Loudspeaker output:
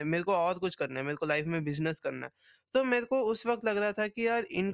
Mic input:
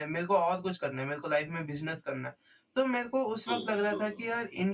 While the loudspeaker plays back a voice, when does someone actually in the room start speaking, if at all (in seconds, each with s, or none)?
3.5 s